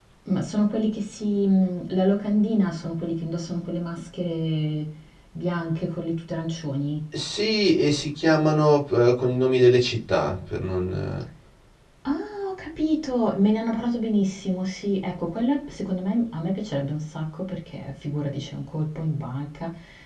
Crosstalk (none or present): none